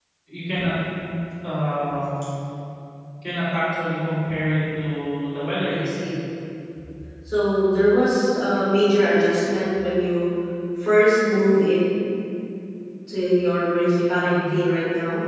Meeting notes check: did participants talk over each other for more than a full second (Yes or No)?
No